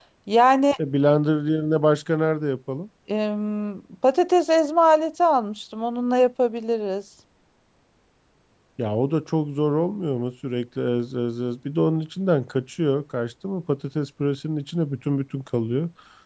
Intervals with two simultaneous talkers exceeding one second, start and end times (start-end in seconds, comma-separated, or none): none